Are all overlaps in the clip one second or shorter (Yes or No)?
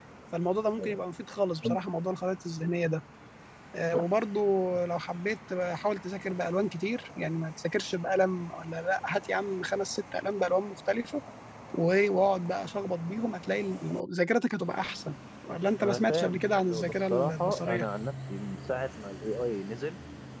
No